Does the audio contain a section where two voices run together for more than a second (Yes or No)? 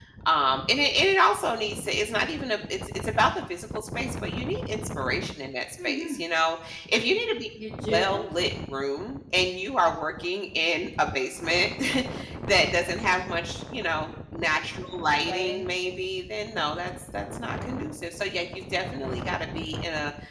No